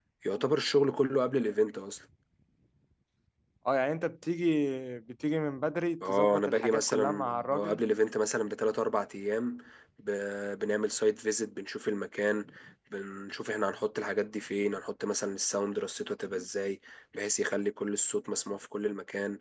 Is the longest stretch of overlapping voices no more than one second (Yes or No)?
No